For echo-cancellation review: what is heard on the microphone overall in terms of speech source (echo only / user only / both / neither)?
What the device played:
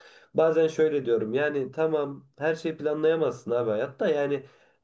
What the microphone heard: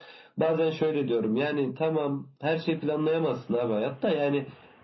echo only